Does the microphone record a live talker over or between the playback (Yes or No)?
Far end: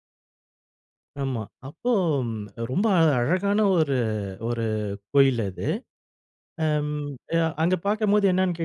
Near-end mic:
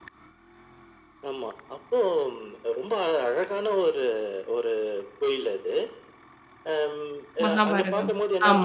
Yes